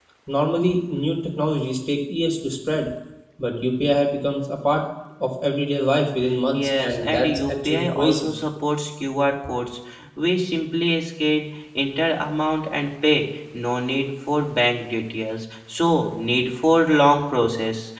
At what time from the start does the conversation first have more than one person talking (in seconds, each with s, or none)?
6.5 s